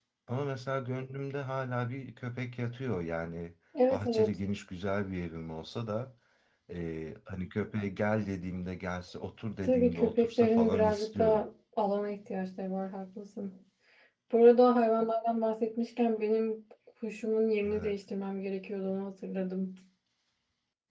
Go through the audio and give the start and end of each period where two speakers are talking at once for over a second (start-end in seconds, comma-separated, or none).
9.6-11.4